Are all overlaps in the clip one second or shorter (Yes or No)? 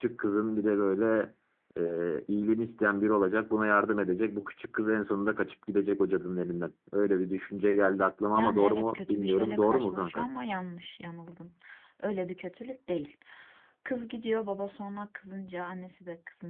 No